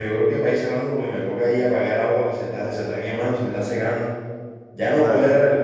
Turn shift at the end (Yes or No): No